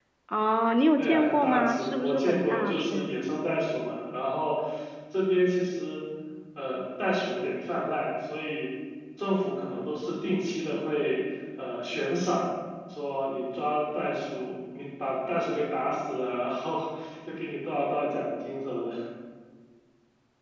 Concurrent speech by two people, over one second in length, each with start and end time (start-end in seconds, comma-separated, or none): 1.0-3.1